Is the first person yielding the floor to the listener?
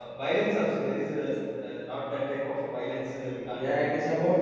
Yes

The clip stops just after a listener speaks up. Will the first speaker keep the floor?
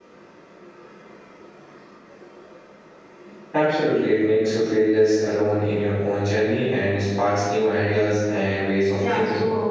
No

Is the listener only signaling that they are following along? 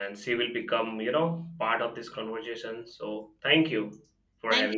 No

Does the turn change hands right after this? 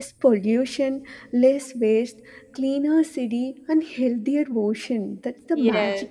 Yes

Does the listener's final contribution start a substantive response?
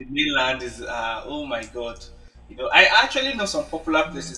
No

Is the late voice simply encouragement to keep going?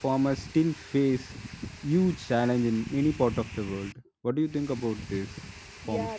No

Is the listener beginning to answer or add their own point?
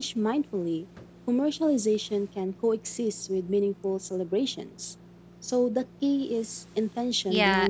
Yes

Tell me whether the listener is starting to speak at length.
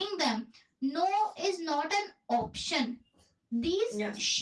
No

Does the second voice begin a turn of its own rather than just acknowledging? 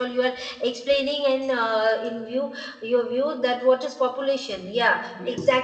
No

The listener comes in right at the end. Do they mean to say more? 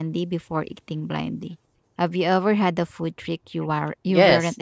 Yes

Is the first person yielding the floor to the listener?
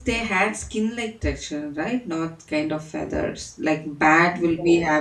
No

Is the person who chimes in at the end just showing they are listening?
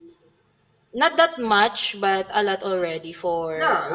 No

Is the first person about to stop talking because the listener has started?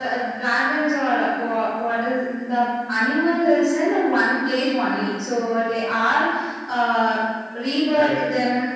No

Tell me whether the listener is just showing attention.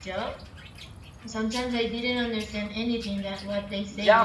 No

